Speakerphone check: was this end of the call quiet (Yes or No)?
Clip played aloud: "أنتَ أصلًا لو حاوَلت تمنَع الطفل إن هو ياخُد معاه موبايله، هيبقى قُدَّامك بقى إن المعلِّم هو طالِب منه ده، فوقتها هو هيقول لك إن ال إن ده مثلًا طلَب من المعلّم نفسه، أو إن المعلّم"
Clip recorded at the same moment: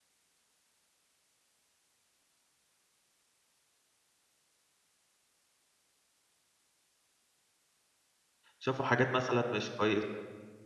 No